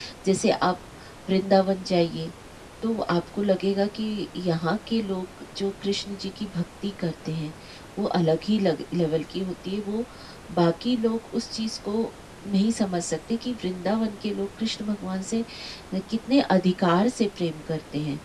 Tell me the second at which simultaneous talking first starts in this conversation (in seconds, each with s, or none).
none